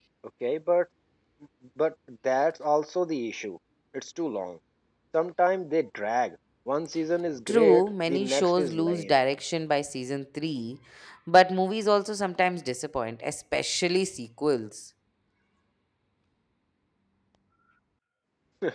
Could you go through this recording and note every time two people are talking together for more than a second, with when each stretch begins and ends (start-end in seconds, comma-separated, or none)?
7.5-9.1